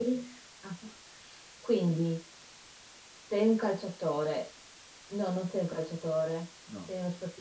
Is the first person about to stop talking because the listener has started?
No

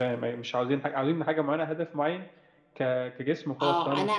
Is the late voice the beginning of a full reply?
Yes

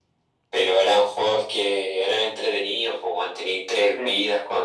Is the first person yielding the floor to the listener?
No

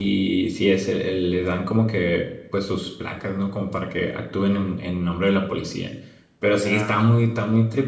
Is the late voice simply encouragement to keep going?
Yes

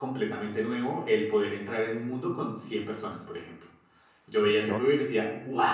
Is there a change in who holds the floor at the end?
No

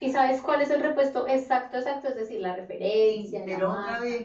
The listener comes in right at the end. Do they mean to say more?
Yes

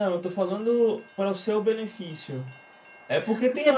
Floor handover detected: No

